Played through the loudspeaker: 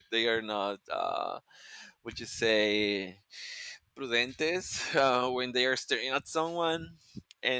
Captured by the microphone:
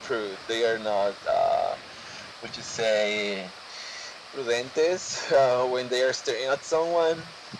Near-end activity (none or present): none